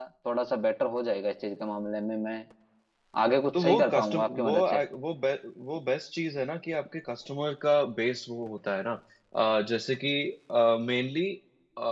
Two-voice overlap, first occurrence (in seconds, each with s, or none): 3.5 s